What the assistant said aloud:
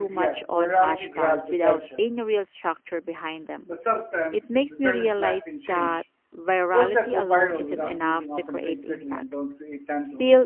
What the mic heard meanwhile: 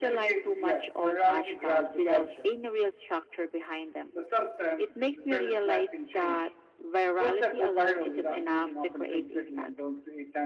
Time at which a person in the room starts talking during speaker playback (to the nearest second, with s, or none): none